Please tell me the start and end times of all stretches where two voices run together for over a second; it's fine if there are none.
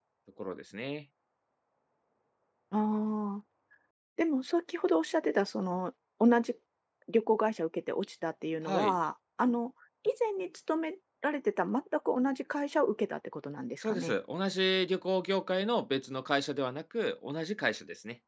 none

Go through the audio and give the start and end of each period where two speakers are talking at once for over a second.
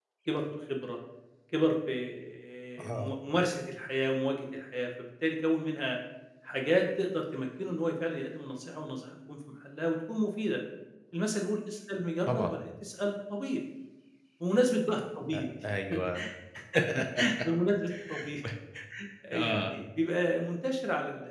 none

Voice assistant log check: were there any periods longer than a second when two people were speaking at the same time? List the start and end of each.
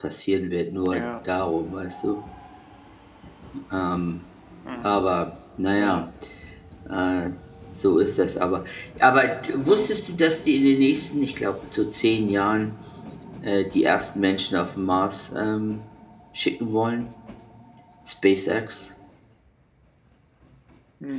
none

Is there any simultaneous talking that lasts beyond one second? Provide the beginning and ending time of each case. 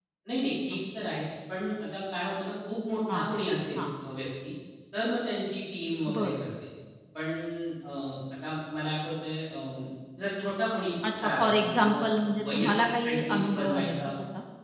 11.1-13.9

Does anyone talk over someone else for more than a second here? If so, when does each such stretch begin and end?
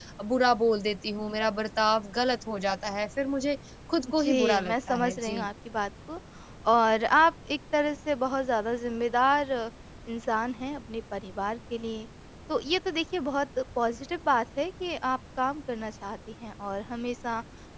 4.2-5.4

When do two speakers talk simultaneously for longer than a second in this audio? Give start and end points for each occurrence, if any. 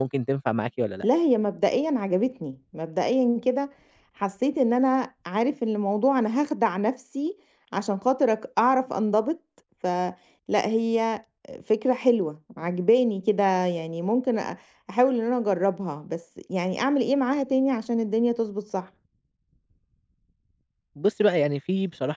none

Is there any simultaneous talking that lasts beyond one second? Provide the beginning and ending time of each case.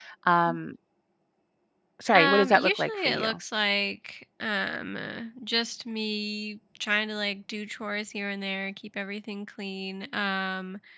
2.1-3.4

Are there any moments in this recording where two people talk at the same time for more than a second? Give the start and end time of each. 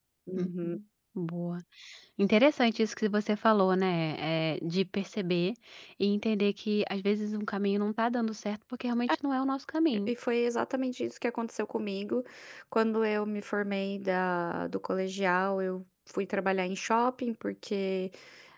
none

